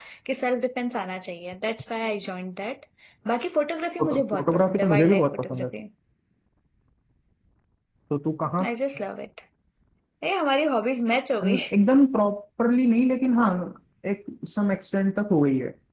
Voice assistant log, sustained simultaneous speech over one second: present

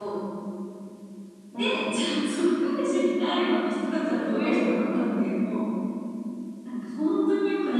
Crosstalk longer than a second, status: present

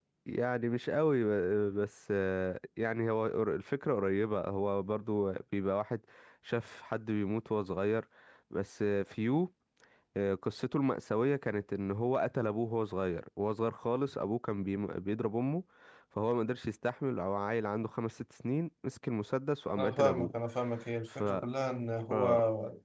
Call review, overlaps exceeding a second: none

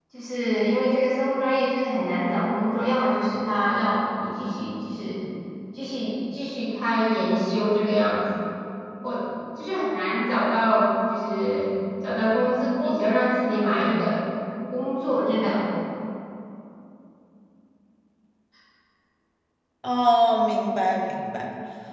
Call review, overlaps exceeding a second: none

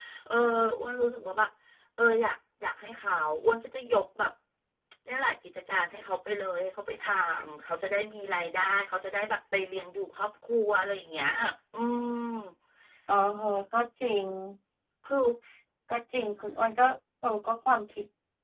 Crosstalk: none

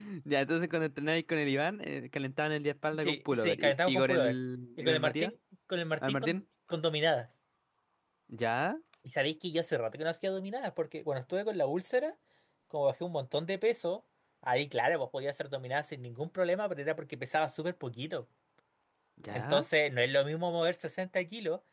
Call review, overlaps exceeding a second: present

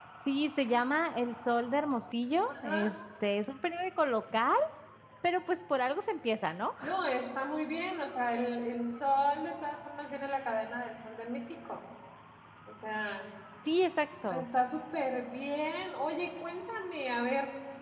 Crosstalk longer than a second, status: none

